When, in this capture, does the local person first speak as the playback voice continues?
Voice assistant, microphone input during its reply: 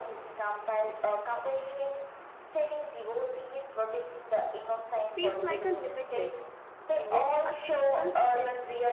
5 s

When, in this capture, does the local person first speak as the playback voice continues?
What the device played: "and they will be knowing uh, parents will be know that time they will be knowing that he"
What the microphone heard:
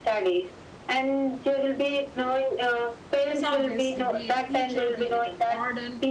3 s

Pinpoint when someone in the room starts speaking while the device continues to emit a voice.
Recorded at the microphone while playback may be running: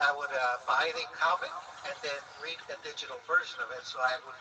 none

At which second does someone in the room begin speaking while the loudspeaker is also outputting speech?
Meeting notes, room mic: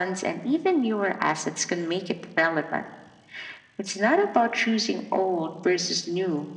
none

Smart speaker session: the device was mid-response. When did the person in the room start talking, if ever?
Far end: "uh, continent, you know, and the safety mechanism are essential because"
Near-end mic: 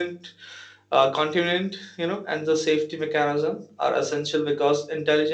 none

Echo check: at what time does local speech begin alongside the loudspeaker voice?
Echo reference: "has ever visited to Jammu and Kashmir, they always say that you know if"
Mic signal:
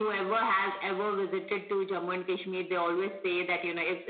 none

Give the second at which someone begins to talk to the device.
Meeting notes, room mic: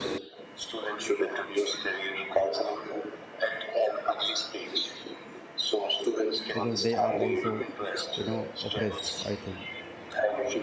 6 s

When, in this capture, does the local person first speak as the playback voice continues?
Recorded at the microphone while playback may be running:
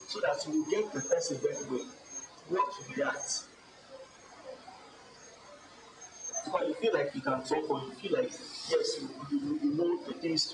none

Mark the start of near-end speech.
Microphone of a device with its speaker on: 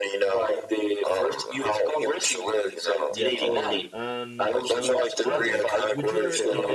3 s

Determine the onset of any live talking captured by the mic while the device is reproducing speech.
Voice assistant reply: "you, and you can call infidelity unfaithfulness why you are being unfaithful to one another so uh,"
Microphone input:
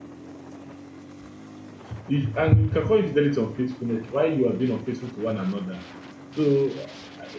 none

